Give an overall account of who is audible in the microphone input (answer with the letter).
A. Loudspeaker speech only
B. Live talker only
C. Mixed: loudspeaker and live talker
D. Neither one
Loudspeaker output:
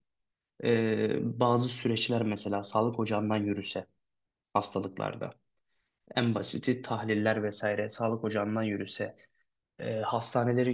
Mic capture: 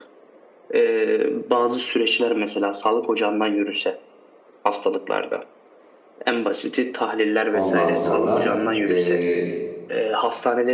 C